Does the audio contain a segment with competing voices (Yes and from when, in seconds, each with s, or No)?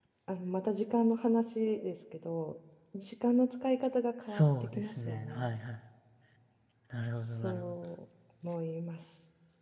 Yes, from 4.2 s